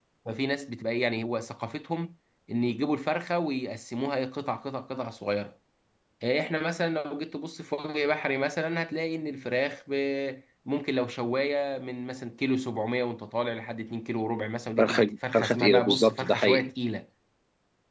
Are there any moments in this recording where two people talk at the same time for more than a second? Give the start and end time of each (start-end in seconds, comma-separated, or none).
14.8-16.7